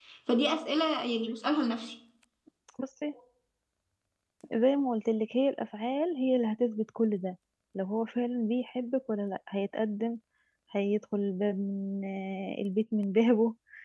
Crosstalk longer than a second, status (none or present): none